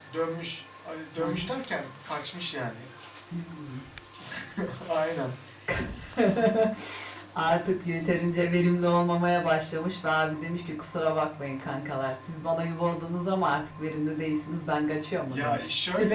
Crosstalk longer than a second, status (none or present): none